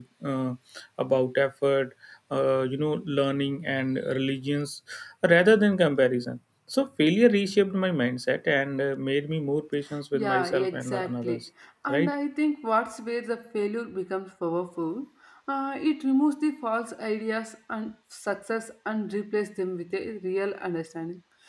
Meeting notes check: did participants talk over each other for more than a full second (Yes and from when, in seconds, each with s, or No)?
Yes, from 10.1 s